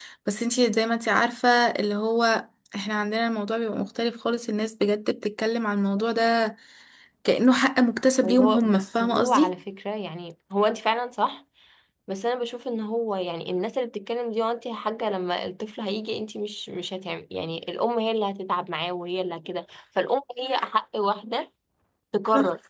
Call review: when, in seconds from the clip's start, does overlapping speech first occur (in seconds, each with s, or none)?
8.2 s